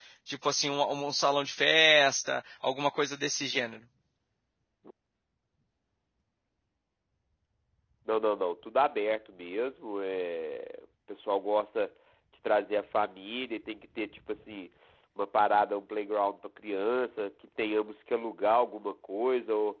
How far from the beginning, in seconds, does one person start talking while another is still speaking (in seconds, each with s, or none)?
none